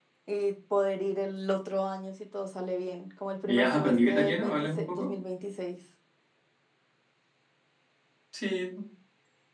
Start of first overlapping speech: 3.5 s

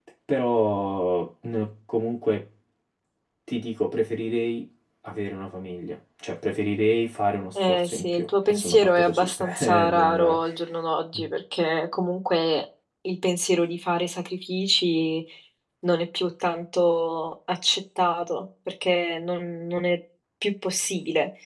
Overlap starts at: 7.5 s

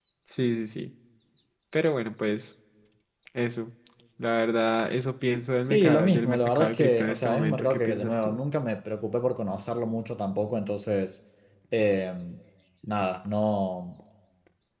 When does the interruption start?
5.7 s

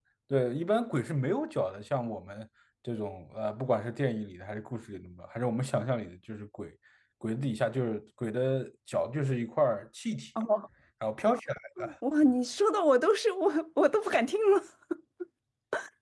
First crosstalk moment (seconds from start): none

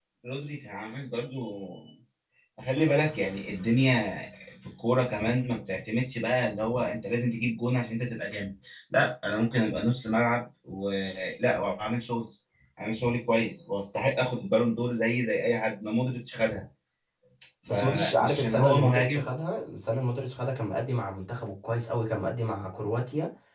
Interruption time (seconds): 17.7 s

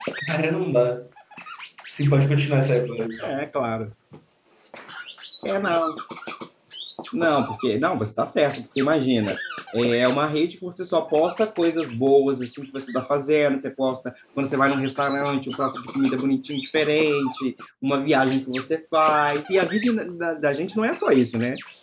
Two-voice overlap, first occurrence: none

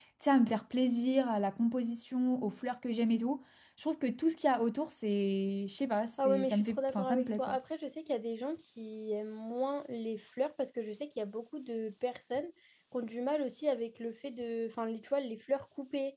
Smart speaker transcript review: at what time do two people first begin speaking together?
6.2 s

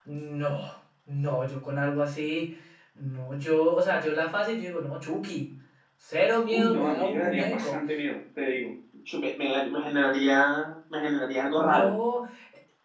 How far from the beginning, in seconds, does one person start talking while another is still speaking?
6.5 s

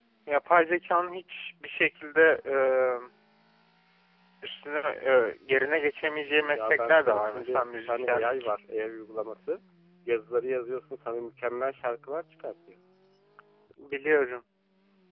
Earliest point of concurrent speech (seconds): 6.4 s

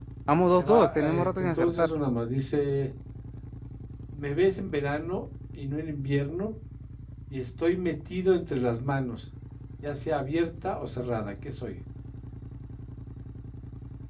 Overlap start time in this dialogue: 0.6 s

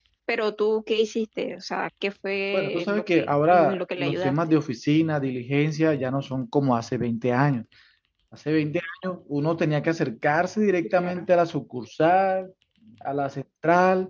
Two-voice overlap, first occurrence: 2.5 s

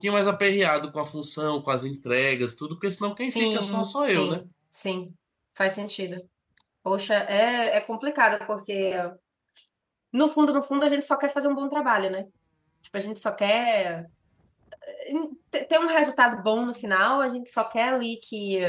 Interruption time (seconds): 3.2 s

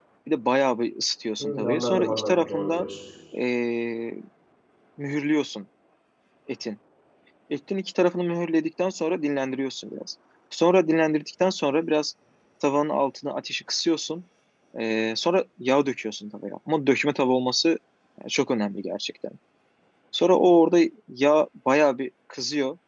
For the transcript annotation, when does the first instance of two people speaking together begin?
1.4 s

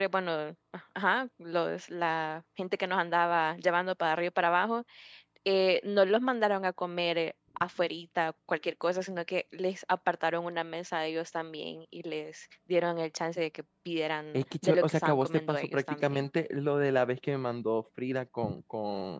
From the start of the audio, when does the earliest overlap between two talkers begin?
14.3 s

